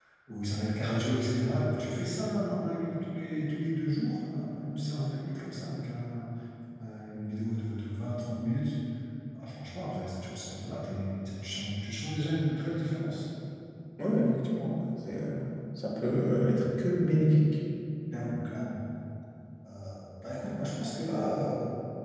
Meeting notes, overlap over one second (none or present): none